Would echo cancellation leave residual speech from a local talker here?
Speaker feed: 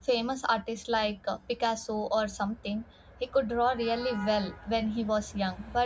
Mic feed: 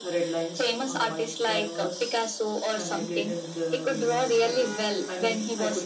Yes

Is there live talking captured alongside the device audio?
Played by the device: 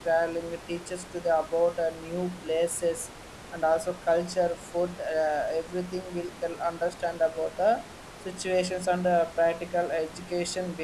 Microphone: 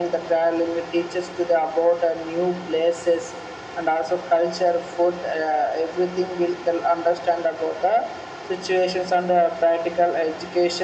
No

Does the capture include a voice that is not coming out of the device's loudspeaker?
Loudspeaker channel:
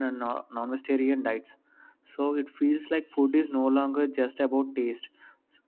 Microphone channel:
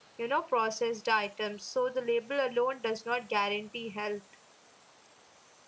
Yes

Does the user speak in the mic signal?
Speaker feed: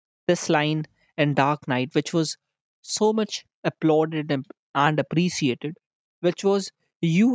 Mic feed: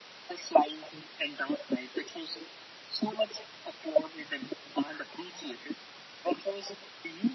No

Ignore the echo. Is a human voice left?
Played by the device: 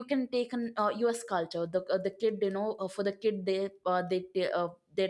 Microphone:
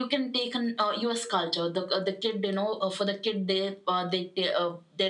No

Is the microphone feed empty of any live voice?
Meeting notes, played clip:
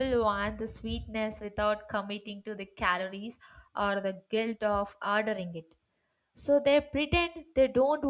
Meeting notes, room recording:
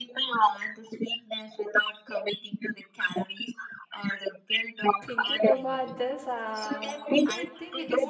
No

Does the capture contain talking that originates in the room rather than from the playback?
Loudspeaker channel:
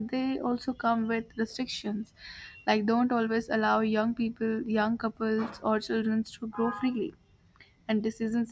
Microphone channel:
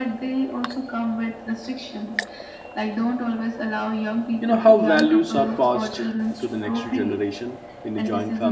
Yes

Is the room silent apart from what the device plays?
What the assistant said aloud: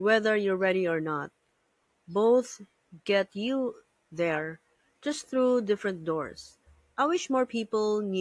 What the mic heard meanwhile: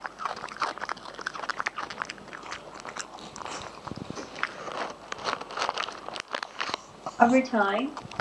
No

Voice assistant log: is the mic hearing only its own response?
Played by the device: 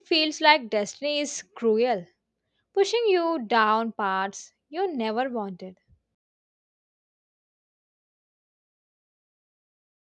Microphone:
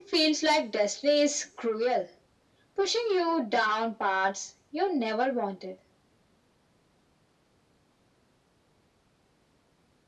Yes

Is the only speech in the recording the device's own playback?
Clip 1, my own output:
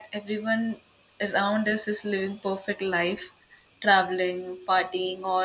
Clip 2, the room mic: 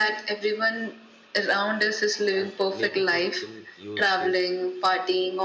No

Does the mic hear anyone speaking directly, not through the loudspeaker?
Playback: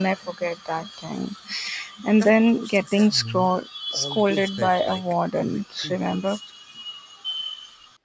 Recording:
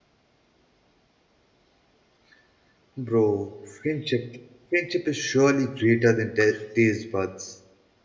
Yes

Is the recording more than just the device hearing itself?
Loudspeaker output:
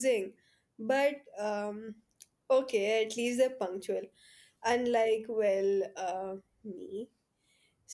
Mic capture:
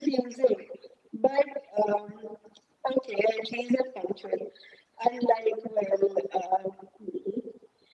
No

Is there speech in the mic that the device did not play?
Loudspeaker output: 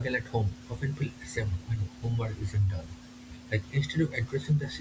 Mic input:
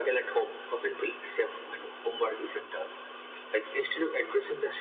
No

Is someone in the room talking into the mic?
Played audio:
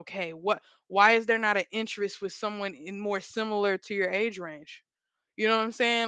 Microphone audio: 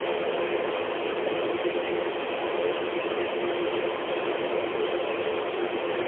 No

